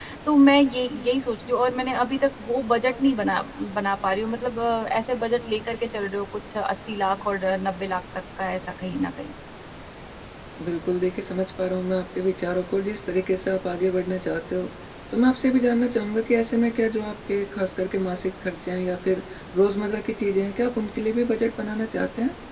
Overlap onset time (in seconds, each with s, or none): none